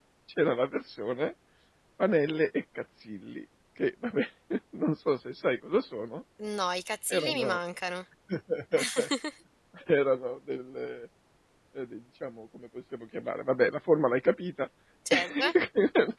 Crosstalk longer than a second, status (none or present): none